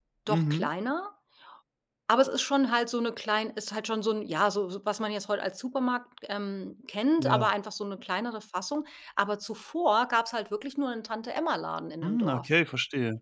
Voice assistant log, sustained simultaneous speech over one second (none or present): none